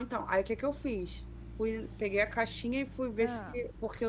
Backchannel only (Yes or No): Yes